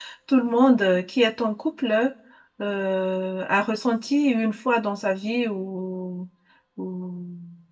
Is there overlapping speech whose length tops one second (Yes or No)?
No